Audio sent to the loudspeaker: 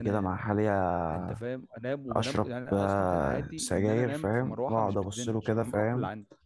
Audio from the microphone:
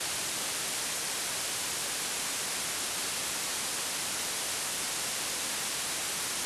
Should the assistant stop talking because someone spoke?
No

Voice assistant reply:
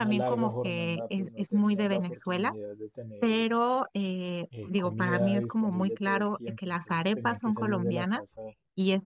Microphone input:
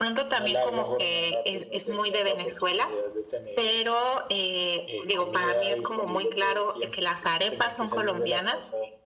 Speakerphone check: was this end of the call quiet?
Yes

